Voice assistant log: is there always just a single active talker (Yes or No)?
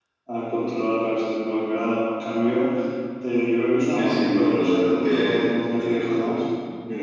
No